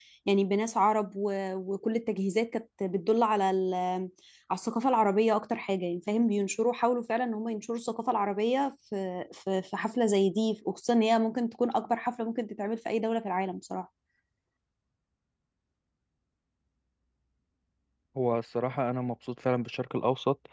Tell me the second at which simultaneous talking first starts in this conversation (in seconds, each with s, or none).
none